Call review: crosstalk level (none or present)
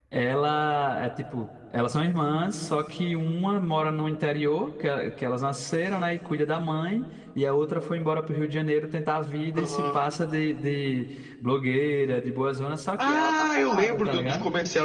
present